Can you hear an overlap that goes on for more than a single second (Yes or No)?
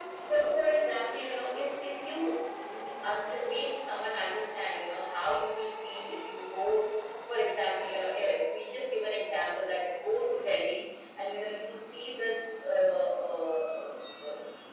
No